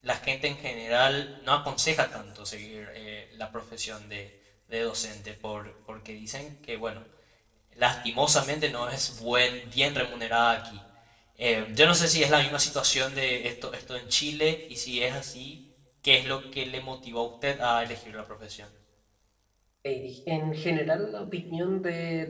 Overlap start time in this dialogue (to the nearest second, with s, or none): none